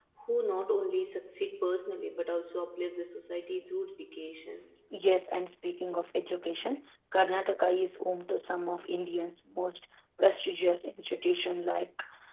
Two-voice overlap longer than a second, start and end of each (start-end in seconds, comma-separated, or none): none